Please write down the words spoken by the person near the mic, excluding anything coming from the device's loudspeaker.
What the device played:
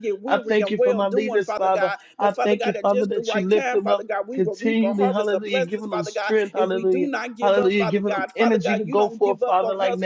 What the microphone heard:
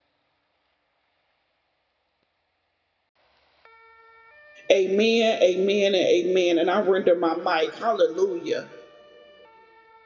Amen, amen, and amen. And I render my mic. Hallelujah.

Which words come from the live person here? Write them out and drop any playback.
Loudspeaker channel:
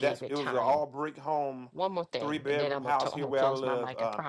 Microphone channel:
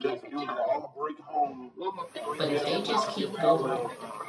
But if they just keep going

